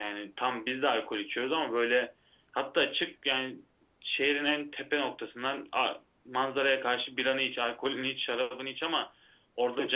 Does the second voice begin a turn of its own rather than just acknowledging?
No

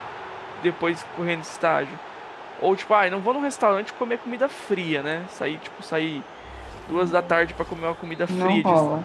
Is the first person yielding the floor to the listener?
No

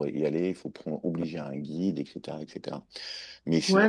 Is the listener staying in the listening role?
No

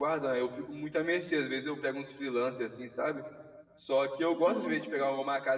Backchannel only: Yes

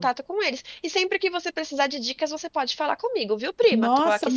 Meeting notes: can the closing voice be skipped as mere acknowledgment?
No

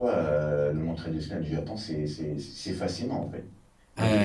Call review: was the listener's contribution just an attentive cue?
Yes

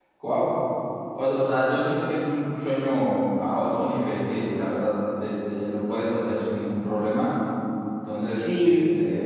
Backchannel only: Yes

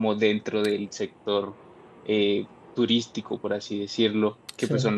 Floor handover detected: No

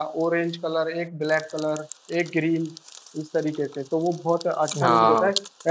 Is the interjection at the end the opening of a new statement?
No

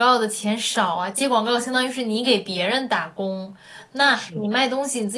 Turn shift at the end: No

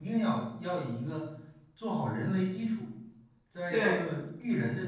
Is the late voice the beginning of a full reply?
No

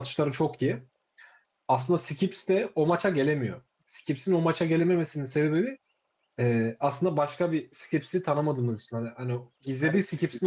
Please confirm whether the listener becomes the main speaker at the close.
No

